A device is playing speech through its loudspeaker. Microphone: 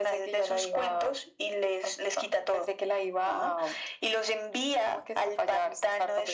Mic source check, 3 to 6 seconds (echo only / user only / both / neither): echo only